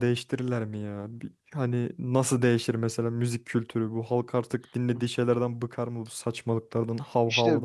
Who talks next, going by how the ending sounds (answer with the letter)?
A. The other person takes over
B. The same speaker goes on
A